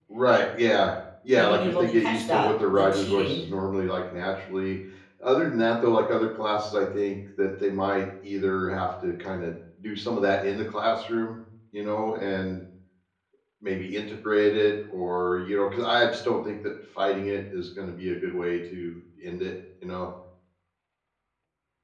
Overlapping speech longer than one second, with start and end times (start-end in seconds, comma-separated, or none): 1.3-3.4